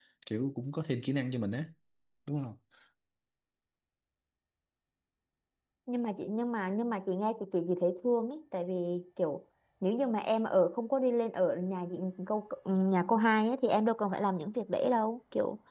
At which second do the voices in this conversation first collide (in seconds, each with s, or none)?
none